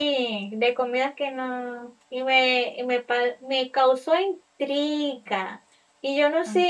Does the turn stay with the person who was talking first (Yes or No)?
Yes